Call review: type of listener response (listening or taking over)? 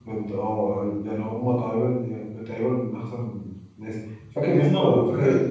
taking over